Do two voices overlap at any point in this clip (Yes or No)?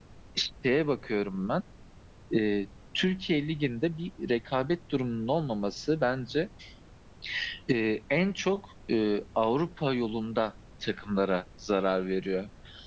No